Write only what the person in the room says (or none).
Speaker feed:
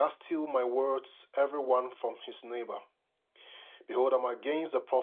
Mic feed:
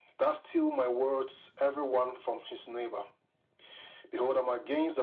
none